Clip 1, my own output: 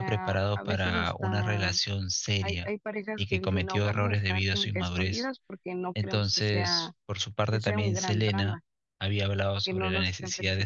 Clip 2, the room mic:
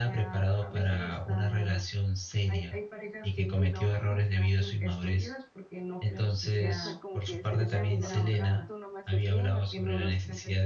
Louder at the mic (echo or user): echo